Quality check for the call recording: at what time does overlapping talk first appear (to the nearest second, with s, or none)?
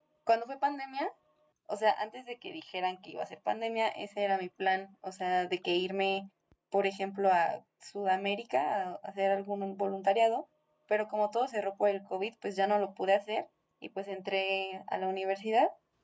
none